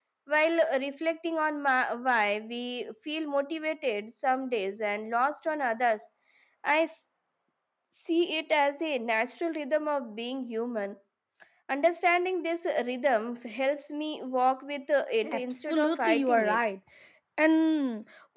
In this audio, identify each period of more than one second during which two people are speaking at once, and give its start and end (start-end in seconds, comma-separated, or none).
15.3-16.6